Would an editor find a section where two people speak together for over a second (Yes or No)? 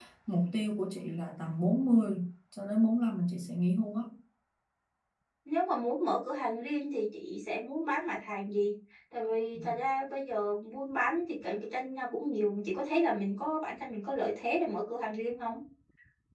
No